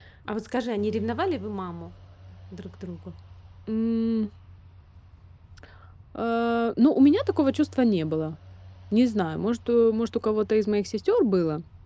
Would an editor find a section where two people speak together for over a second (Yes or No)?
No